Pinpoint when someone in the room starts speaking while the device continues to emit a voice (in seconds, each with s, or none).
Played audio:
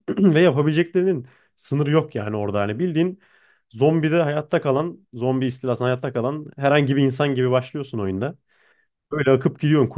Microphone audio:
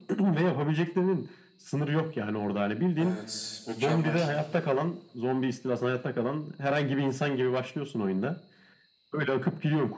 3.0 s